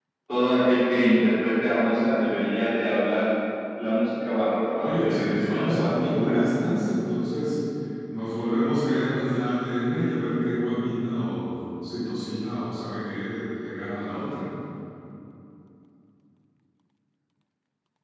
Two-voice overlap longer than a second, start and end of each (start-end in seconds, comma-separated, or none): 4.8-6.4